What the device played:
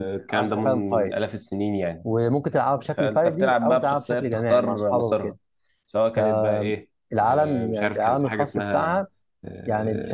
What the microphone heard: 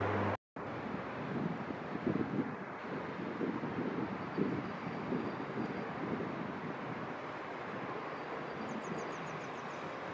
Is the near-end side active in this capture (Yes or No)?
No